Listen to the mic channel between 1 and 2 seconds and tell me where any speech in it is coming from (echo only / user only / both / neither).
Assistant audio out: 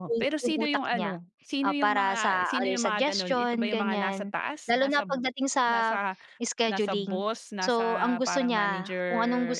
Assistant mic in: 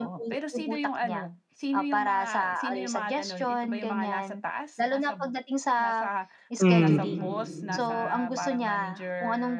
echo only